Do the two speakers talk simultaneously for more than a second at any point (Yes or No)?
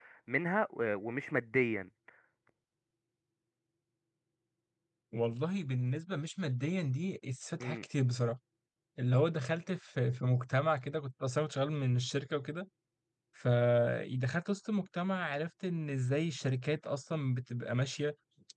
No